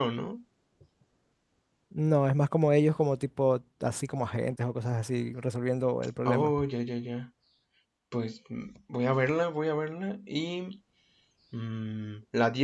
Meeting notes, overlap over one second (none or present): none